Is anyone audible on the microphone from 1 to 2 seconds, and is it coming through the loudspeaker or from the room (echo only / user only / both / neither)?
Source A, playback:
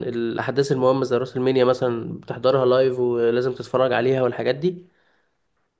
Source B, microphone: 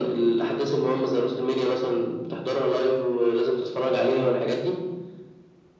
echo only